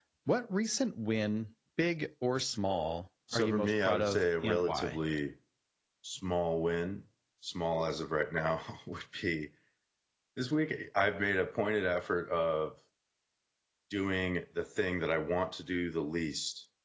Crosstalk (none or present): present